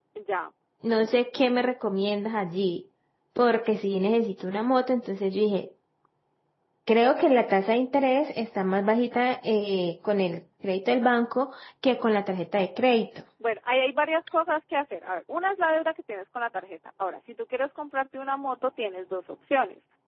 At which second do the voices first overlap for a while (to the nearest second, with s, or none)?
none